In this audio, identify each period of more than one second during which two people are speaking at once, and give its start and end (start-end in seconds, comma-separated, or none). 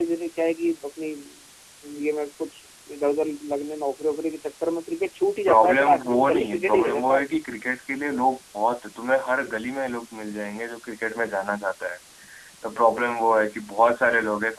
5.5-7.2